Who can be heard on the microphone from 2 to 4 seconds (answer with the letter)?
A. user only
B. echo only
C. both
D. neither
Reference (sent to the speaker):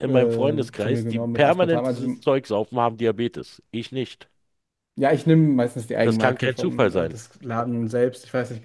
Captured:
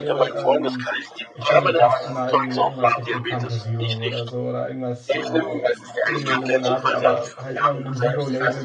C